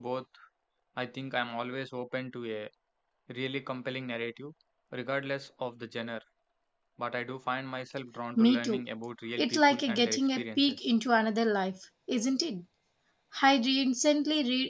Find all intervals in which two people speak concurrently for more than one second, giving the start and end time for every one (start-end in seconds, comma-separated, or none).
9.4-10.8